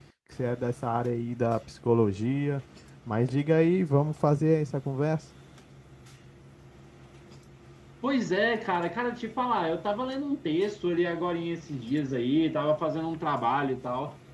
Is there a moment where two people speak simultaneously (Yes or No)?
No